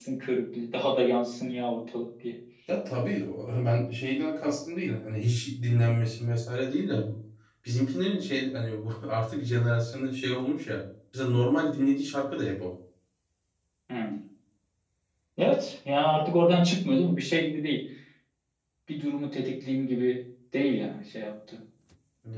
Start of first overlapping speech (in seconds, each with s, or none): none